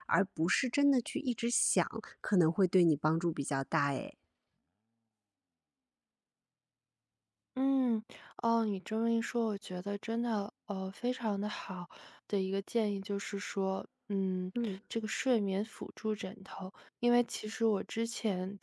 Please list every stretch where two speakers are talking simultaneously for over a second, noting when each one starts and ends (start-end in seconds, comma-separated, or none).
none